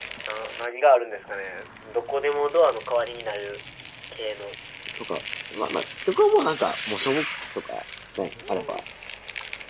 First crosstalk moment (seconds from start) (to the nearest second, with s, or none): none